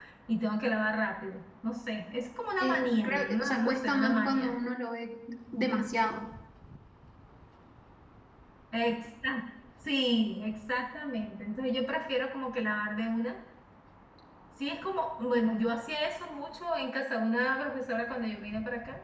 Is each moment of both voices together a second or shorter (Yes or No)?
No